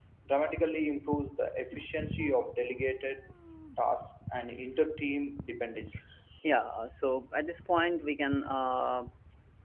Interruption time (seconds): none

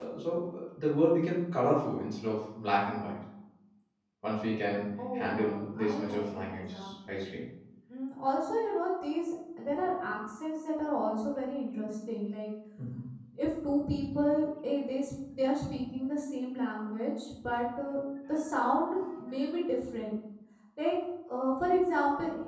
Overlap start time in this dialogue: 5.0 s

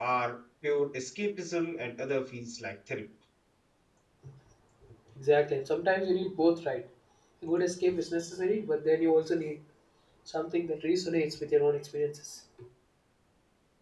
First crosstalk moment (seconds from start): none

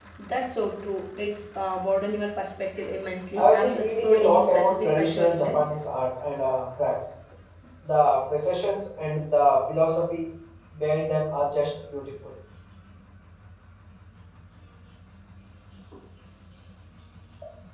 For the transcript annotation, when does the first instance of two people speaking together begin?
3.3 s

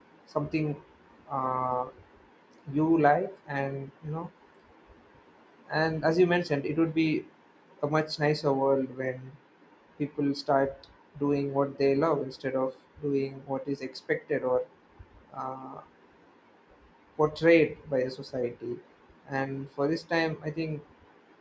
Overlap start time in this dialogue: none

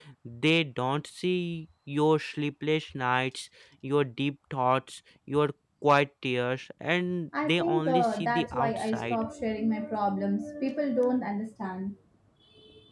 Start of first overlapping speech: 7.3 s

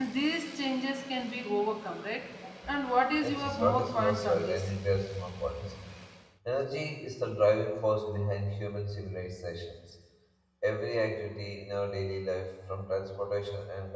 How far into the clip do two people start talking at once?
3.2 s

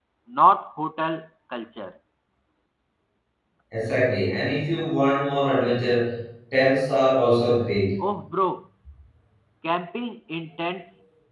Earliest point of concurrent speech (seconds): none

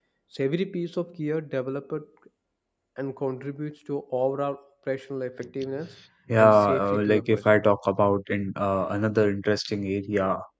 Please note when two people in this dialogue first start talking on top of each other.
6.4 s

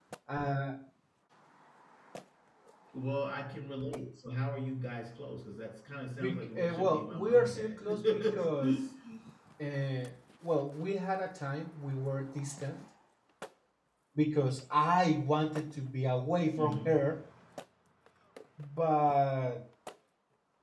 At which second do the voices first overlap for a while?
6.2 s

